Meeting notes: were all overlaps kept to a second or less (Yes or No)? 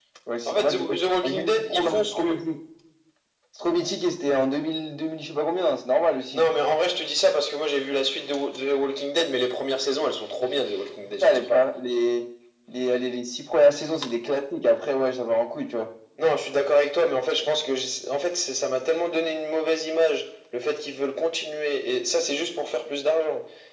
No